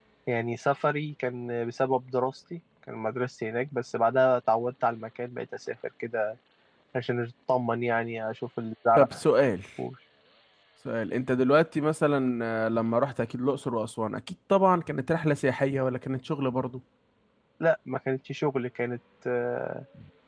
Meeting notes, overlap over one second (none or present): none